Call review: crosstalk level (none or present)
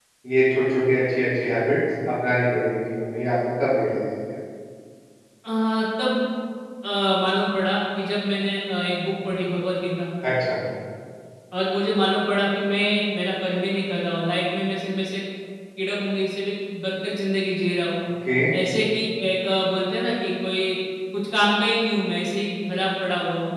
none